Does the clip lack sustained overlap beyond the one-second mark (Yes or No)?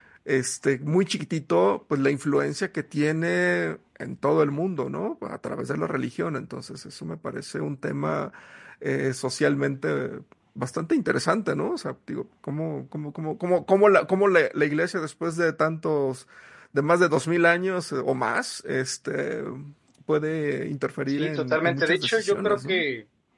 No